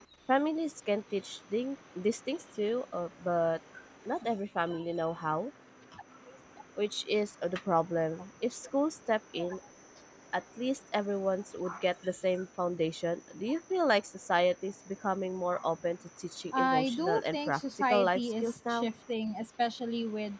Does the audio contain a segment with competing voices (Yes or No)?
Yes